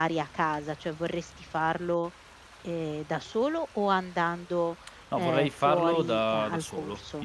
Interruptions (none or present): present